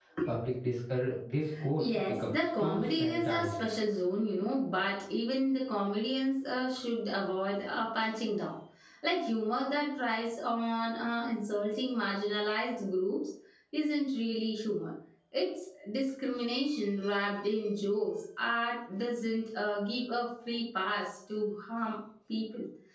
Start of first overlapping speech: 1.8 s

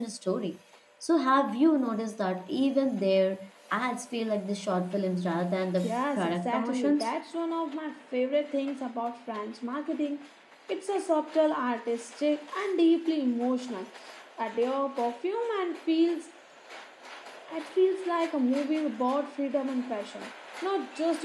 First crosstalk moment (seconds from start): 5.8 s

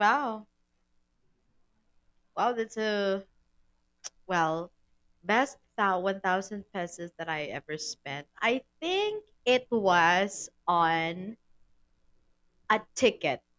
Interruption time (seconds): none

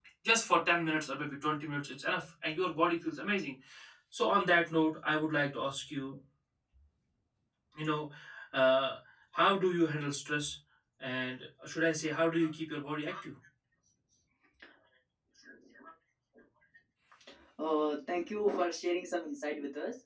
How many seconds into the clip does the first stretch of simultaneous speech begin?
none

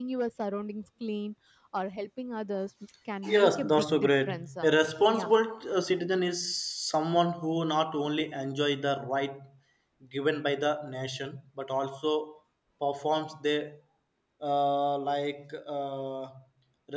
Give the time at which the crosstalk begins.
3.2 s

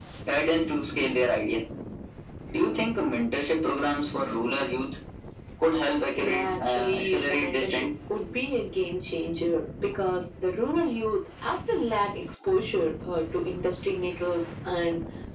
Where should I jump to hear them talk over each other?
6.2 s

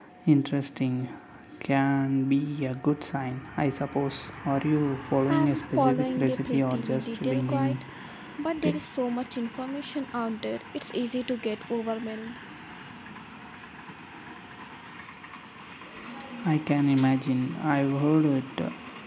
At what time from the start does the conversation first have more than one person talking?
5.3 s

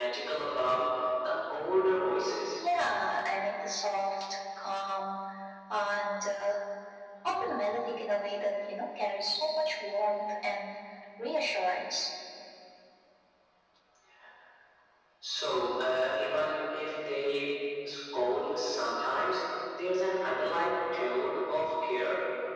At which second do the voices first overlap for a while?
none

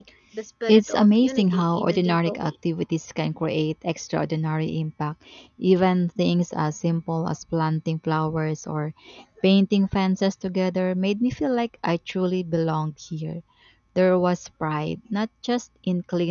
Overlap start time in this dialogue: 0.7 s

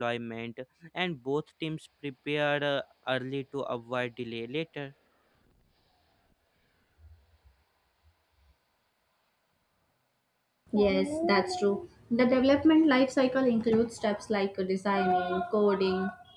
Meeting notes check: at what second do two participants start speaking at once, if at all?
none

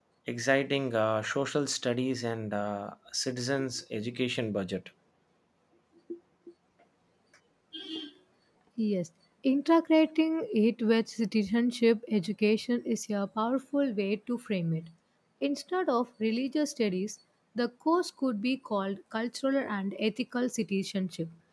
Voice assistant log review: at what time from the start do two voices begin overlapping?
none

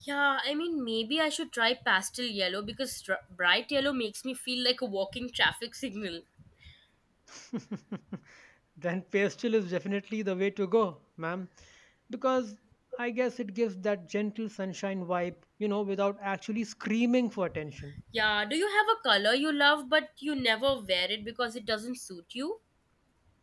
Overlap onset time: none

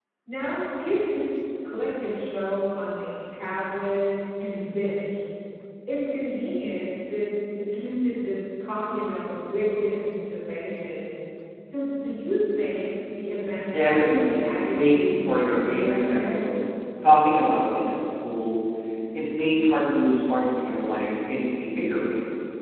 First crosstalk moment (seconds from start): 13.7 s

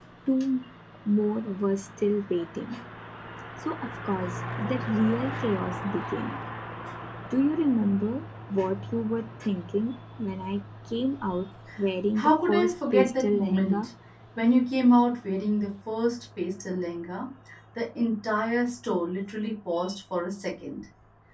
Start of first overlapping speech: 12.2 s

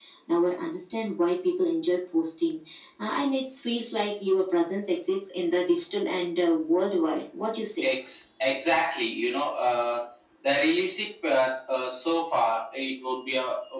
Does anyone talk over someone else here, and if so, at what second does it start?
none

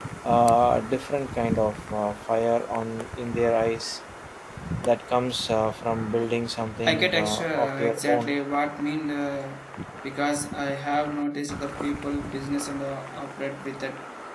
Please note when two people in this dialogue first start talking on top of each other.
6.9 s

